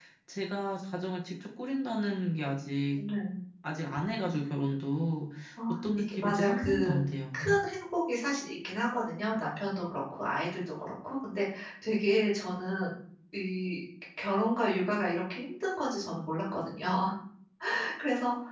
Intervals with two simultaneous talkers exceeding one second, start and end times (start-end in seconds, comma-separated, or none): 5.7-7.0